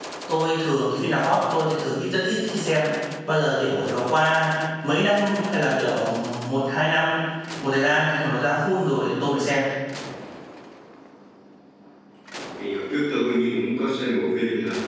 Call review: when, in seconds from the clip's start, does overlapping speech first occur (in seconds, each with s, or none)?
none